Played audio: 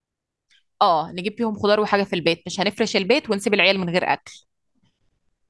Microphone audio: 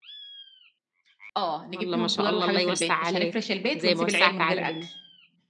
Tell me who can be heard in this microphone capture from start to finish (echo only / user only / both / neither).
both